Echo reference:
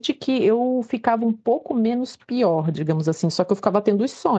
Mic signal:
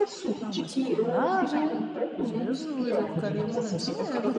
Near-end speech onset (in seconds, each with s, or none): 0.4 s